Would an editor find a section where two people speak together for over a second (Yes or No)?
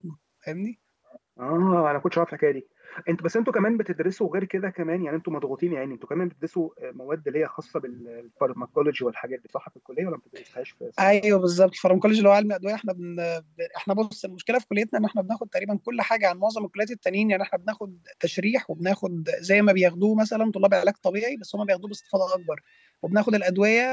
No